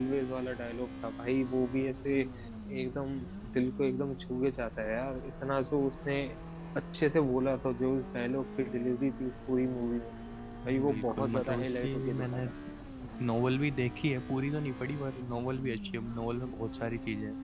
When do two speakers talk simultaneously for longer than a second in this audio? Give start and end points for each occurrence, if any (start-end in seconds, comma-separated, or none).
10.7-12.5